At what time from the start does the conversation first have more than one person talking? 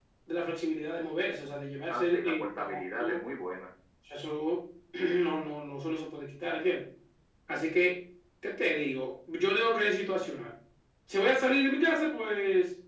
1.9 s

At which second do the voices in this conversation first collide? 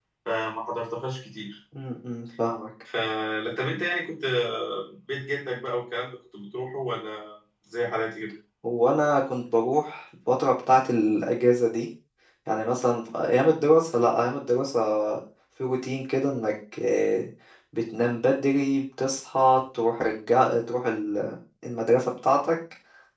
none

